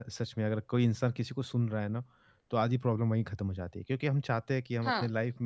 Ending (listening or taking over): listening